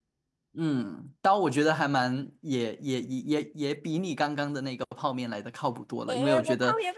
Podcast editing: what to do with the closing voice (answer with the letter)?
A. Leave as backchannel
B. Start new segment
B